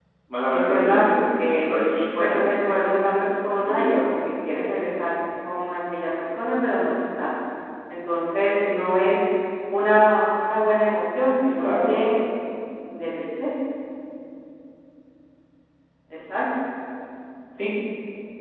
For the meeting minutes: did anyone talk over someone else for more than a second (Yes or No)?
Yes